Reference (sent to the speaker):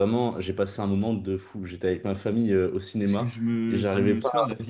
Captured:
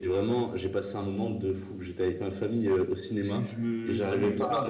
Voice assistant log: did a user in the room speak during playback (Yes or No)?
No